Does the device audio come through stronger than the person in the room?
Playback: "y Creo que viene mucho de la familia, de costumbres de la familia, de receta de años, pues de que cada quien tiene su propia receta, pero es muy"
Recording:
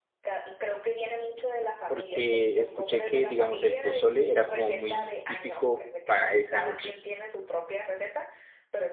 No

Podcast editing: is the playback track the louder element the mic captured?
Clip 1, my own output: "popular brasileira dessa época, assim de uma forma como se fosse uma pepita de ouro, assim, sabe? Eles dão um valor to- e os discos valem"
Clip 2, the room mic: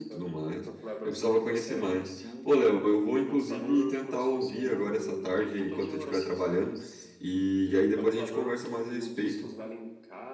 No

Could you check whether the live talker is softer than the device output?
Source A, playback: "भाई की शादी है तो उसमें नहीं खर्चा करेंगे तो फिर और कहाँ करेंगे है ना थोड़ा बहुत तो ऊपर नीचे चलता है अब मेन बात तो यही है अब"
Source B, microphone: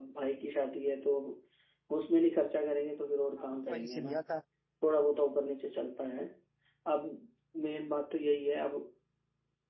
Yes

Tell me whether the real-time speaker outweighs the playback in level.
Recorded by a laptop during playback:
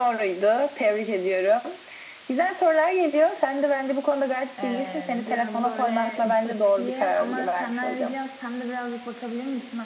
No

